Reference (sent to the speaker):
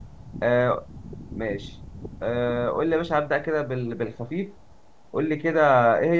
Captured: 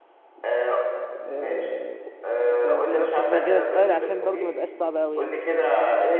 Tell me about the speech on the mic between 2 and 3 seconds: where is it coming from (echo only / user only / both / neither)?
both